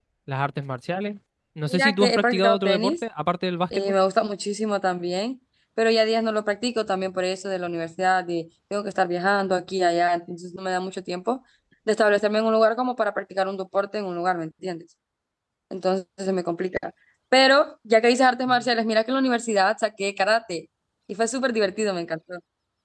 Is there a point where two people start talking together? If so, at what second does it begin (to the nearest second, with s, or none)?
2 s